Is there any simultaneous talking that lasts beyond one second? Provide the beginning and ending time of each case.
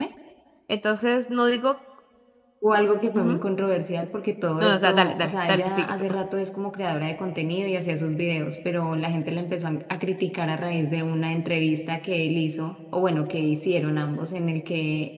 4.6-5.9

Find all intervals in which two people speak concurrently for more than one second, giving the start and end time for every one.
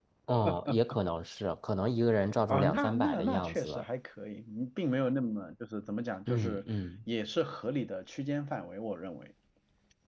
2.5-3.8

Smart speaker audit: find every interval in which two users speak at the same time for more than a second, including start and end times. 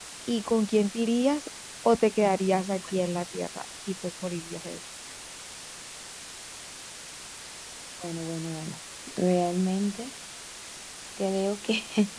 none

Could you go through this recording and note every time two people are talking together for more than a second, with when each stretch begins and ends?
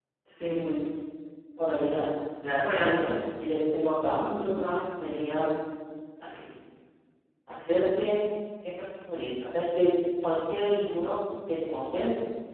none

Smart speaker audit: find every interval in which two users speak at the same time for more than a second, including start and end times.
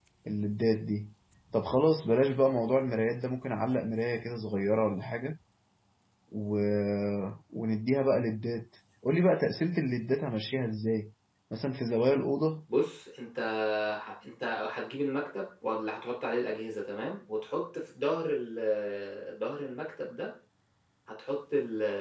none

